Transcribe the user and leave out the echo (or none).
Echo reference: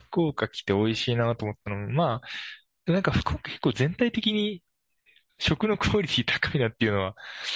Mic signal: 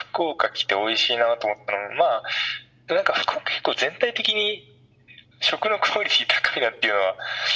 none